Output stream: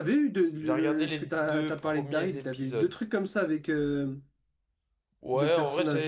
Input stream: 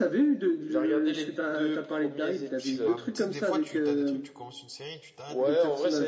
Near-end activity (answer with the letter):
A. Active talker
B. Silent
A